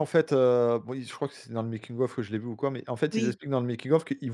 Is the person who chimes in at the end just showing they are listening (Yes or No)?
Yes